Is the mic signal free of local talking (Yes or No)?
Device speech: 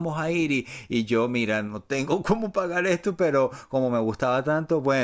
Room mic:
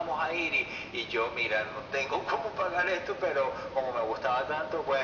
Yes